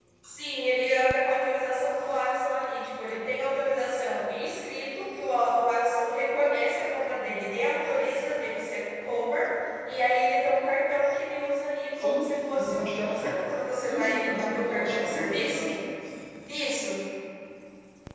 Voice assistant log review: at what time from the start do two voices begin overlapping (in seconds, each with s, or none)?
11.9 s